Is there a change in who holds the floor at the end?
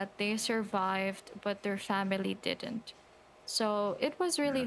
No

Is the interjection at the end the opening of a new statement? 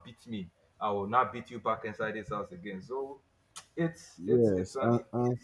Yes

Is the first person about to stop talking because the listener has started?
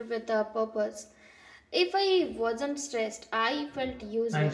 Yes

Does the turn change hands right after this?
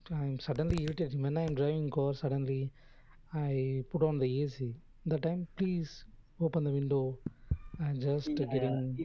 Yes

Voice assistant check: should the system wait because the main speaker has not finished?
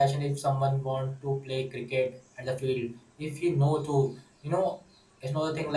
Yes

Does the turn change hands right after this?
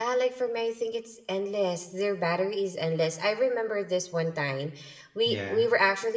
No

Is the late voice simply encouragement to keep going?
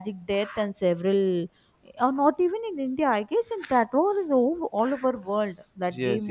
No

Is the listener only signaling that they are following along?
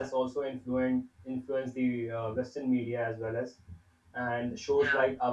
Yes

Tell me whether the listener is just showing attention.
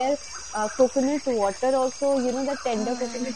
Yes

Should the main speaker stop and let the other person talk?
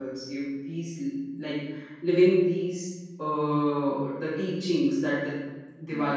No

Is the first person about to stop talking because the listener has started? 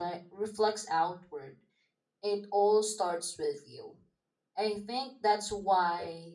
No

